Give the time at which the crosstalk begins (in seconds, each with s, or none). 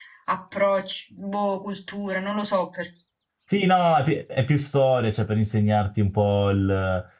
none